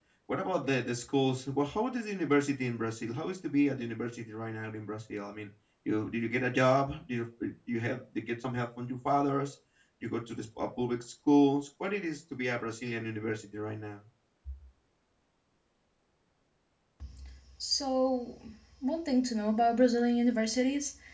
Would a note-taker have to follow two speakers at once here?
No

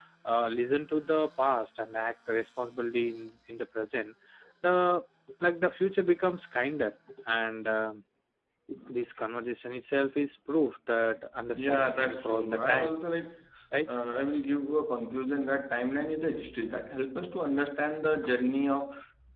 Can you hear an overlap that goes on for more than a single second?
Yes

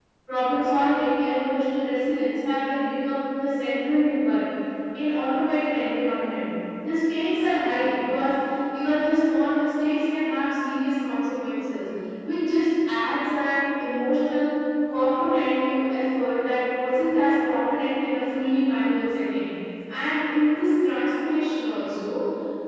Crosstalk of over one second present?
No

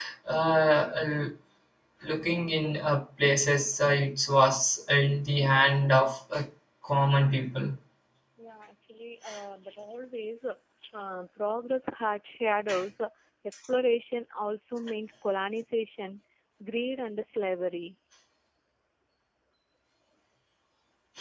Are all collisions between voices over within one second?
Yes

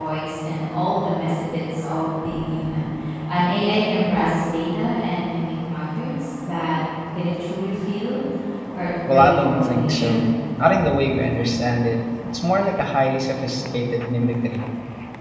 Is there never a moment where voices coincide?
No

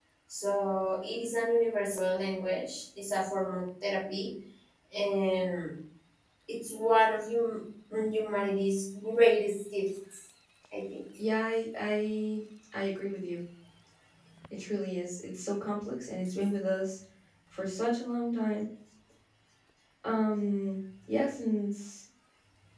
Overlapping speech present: No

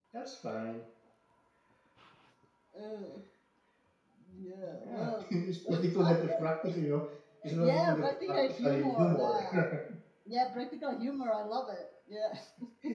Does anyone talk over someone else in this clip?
Yes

